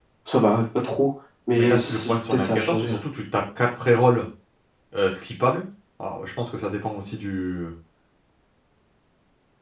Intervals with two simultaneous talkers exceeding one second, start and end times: 1.6-2.9

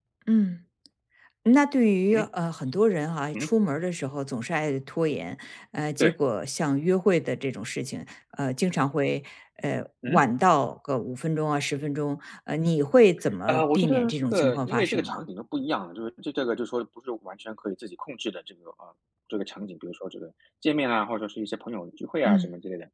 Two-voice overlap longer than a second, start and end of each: 13.5-15.2

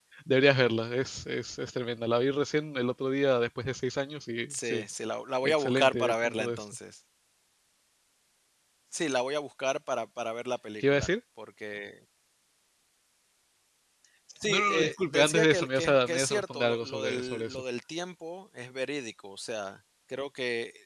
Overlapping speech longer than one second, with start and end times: 5.4-6.6, 14.5-17.6

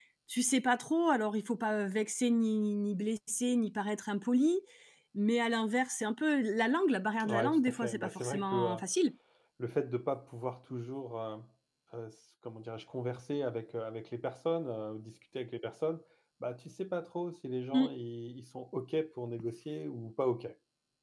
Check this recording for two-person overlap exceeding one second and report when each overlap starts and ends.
7.2-8.8

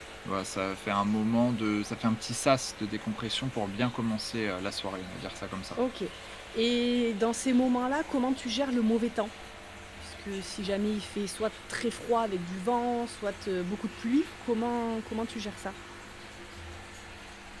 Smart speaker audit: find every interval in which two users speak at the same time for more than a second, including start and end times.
none

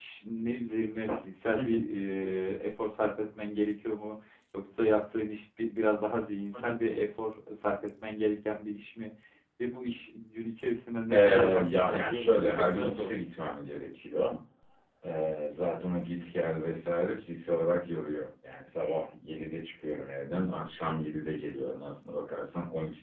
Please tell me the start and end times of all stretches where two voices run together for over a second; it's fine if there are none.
11.1-13.5

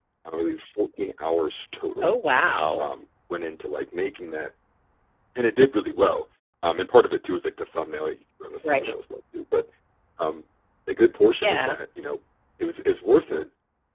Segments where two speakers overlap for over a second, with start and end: none

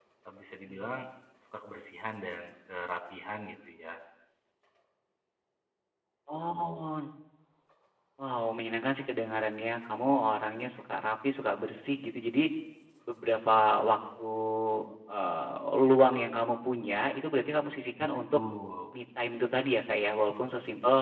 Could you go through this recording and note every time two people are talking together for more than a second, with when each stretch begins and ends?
none

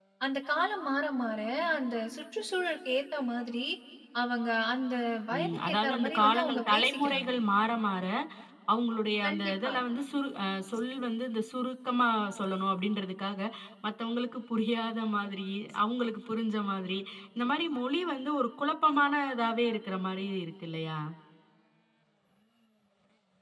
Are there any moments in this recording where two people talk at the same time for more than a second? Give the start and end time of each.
5.4-7.3

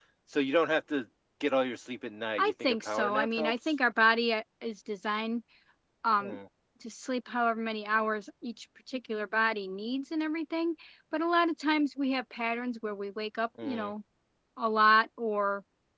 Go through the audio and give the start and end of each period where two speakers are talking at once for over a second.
2.4-3.7

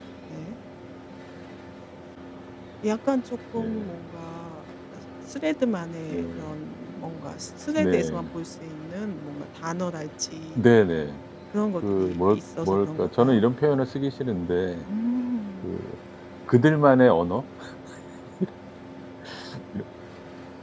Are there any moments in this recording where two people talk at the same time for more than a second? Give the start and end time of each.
11.9-13.4

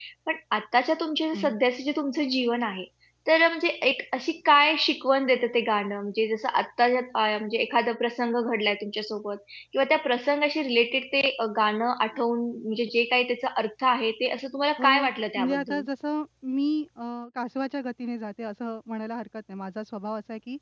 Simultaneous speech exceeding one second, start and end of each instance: none

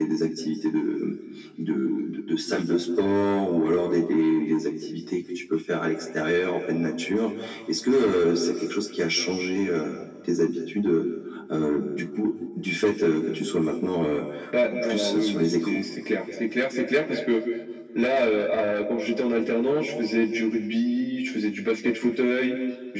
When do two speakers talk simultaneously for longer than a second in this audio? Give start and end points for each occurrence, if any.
14.6-15.8

